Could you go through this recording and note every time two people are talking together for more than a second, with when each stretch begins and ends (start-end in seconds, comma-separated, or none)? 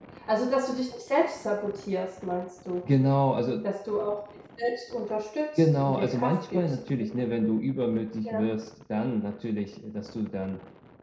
5.5-6.8